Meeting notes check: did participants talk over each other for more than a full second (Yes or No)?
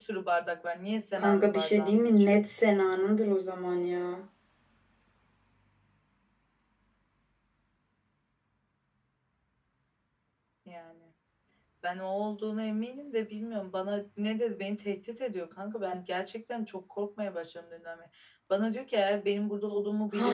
Yes